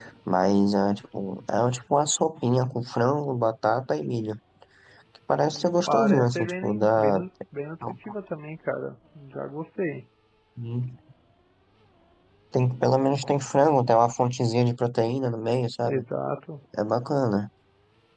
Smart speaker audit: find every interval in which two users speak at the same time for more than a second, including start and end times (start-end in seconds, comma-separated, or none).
5.5-7.2